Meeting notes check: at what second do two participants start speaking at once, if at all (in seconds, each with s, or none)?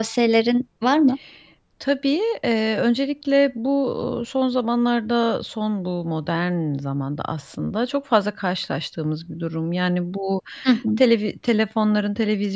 none